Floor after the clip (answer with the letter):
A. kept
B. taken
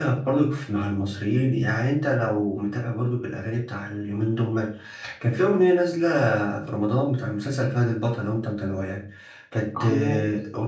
A